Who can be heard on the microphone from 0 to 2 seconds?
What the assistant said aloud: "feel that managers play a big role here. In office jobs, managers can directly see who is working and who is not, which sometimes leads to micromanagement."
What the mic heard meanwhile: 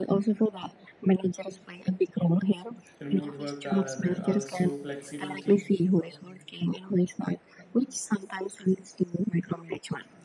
echo only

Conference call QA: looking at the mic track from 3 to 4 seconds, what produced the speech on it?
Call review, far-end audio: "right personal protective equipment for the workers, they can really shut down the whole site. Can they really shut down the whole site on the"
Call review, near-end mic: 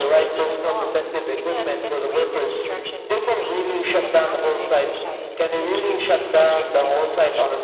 both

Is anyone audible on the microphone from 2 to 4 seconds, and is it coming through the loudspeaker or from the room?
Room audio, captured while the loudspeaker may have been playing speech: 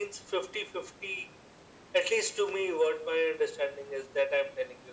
echo only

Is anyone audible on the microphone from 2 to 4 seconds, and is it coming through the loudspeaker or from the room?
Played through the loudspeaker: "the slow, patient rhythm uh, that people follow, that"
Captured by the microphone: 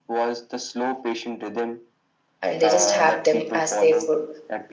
both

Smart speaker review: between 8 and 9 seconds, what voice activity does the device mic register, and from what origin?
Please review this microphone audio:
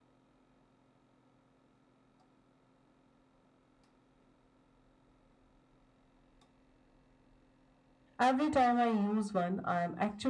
user only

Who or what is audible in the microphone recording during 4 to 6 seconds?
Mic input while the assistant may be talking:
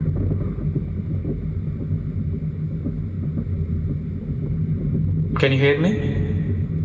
user only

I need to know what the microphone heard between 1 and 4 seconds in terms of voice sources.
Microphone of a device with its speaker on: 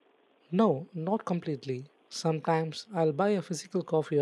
user only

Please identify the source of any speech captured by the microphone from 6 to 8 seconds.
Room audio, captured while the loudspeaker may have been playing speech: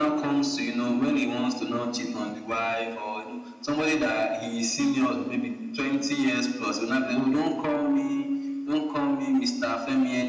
echo only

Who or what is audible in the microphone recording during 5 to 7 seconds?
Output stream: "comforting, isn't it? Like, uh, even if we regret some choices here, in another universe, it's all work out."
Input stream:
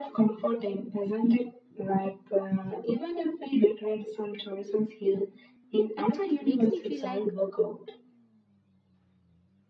both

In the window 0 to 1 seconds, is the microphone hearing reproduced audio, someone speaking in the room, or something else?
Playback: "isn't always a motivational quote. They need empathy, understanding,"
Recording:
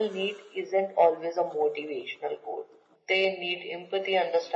echo only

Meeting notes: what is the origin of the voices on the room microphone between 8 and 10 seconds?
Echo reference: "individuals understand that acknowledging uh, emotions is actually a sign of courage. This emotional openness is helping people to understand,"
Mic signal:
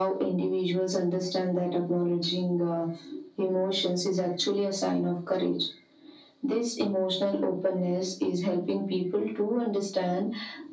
echo only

